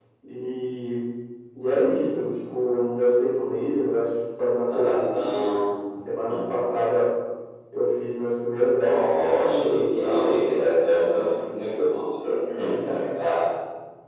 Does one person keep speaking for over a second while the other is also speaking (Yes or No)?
Yes